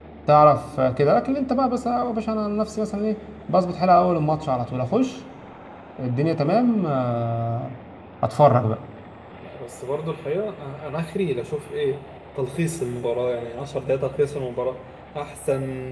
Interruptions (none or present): none